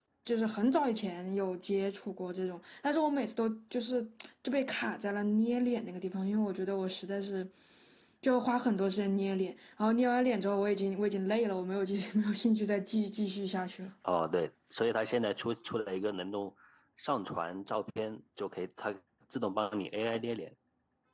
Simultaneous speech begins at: none

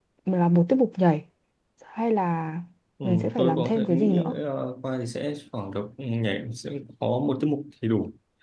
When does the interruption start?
3.0 s

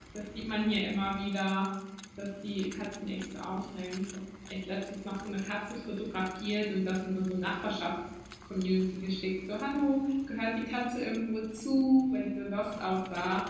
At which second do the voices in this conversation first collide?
none

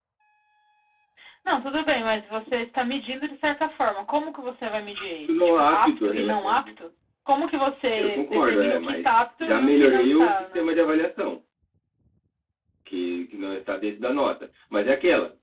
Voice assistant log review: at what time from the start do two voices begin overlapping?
5.3 s

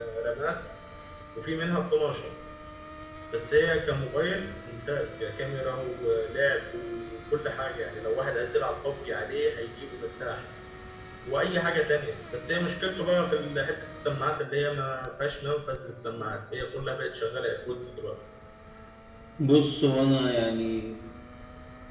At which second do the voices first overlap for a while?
none

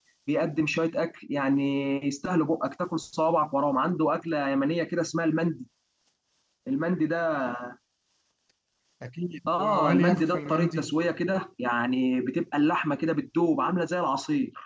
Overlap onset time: 9.6 s

